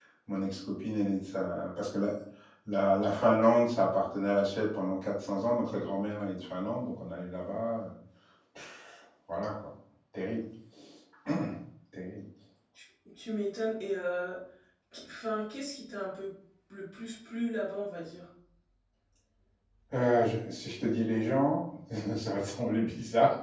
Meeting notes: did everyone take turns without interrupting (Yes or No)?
Yes